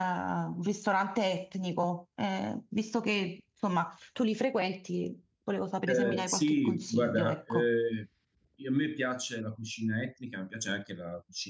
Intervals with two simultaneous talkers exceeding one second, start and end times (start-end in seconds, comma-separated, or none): 5.9-7.7